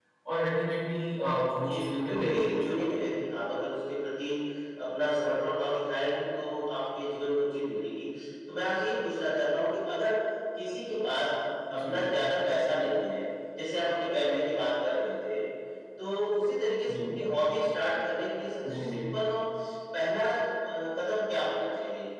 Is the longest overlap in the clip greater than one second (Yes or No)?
Yes